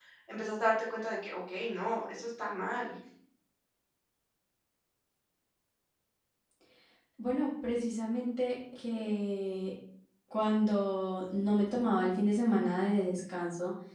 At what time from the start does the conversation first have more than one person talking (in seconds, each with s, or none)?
none